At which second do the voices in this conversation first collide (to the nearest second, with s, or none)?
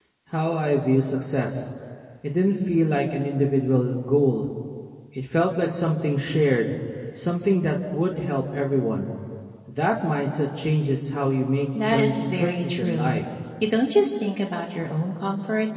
12 s